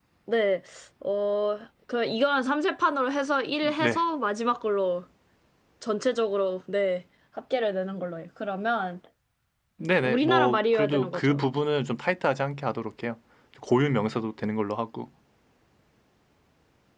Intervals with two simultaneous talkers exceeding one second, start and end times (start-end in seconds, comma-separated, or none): 10.0-11.4